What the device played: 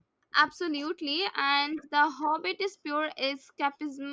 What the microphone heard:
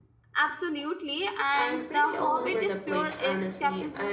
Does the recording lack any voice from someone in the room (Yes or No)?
No